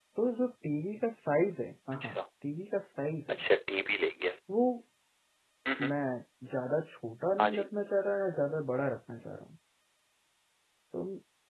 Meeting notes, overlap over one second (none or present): none